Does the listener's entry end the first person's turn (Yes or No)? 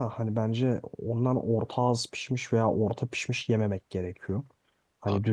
No